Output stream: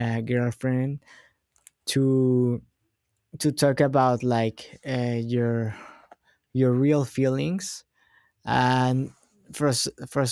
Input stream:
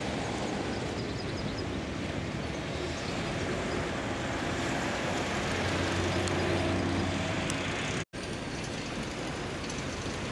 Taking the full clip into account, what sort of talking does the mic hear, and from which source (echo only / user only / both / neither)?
neither